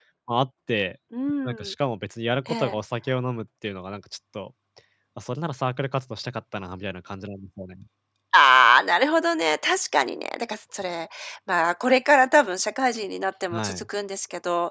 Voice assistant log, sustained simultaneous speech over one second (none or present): none